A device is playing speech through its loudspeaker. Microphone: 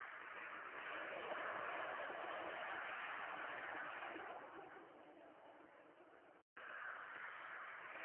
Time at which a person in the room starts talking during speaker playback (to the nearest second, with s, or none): none